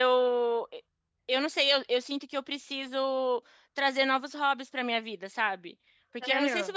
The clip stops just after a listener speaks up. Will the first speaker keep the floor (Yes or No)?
Yes